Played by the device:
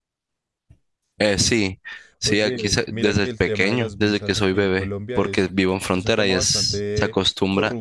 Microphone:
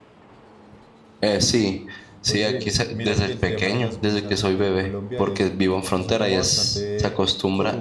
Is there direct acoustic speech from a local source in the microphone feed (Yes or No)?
No